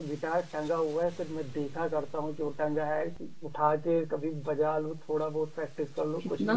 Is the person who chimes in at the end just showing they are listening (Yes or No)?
No